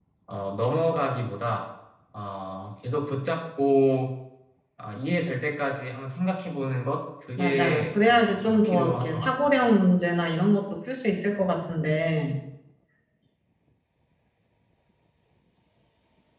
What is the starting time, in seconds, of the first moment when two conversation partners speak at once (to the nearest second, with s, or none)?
7 s